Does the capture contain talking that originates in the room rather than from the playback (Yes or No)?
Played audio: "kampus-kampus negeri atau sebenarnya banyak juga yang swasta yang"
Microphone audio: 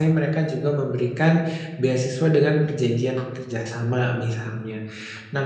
Yes